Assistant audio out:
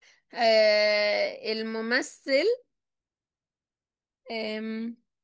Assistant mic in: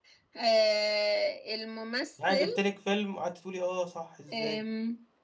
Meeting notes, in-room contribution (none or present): present